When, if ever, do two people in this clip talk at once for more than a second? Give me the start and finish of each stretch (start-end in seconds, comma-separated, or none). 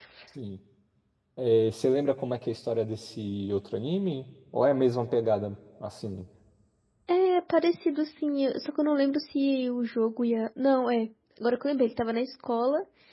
none